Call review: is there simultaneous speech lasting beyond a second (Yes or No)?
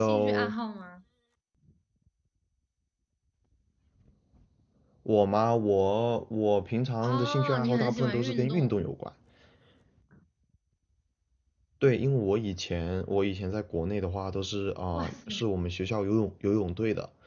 Yes